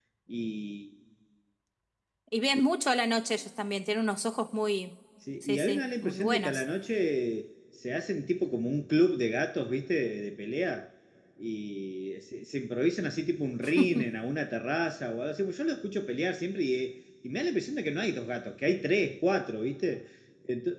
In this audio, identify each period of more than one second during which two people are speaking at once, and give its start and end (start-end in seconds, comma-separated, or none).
5.4-6.6